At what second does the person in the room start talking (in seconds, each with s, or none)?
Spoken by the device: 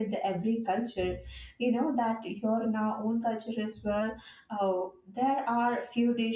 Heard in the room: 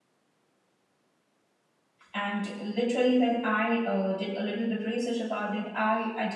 2.1 s